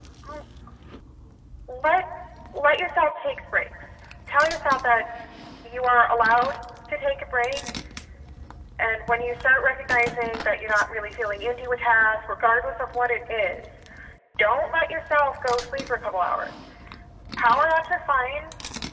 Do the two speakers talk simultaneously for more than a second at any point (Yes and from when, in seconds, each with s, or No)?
No